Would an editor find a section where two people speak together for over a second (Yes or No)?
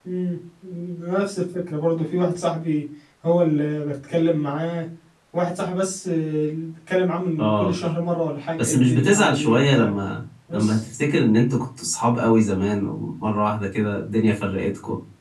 Yes